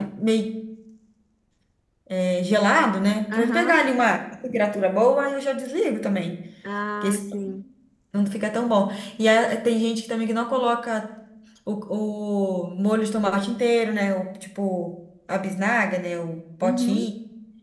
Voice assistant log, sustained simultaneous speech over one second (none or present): none